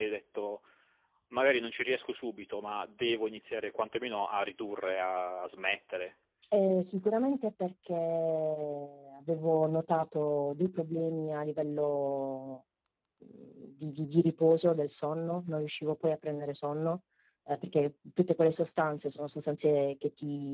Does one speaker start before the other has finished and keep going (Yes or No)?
No